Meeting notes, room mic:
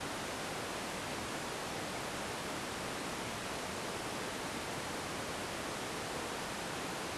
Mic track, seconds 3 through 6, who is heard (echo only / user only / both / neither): neither